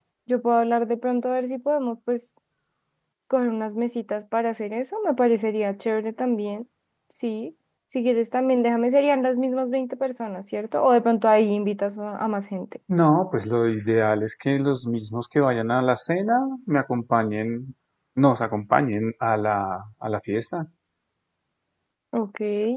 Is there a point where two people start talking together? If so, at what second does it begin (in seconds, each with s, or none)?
none